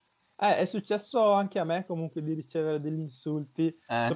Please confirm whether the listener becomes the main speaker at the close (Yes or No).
No